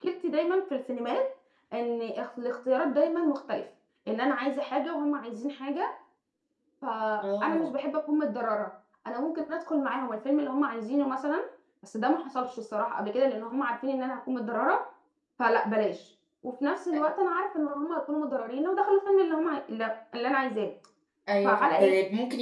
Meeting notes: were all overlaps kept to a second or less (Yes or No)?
Yes